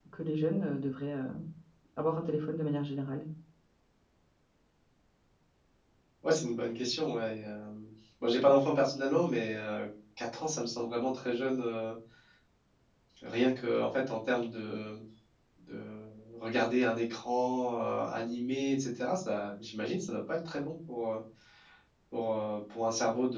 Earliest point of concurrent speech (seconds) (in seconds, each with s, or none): none